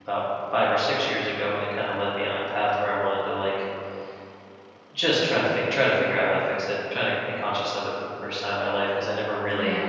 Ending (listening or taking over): listening